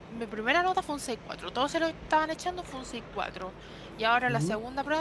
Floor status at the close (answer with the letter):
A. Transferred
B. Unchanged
B